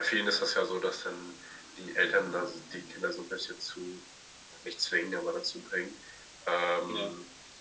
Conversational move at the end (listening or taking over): listening